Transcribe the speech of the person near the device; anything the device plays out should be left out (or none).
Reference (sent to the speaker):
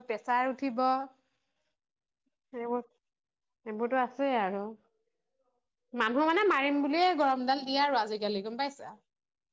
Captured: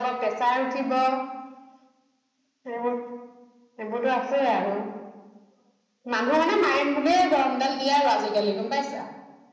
none